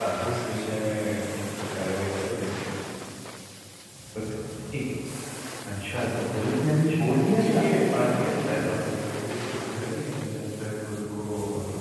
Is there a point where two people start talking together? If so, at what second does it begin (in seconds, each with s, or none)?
7.3 s